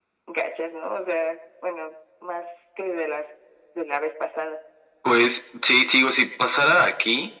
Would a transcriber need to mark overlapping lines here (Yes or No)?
No